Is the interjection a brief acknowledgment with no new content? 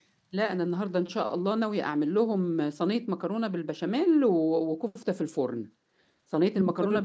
Yes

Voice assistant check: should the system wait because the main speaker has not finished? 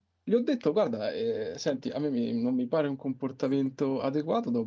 Yes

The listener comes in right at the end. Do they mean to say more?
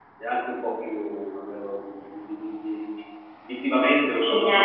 Yes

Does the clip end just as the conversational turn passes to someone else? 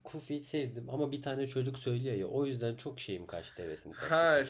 Yes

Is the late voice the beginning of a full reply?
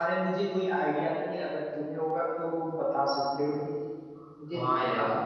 Yes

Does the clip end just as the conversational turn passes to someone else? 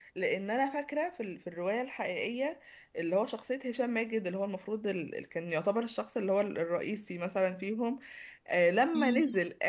No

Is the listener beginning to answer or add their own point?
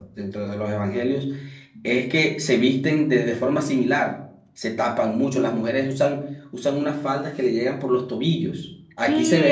Yes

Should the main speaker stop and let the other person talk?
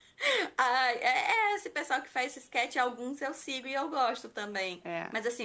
No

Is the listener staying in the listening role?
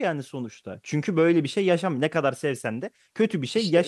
No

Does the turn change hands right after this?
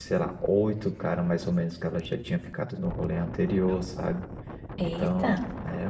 No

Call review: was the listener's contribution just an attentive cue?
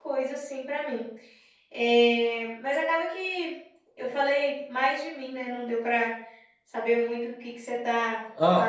No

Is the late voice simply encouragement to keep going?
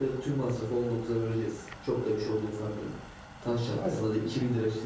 Yes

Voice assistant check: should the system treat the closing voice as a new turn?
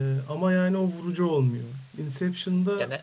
No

